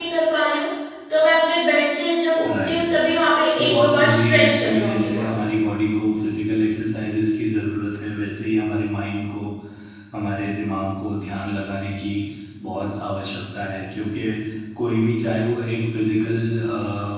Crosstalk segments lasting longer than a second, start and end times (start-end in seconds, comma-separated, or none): 3.6-5.4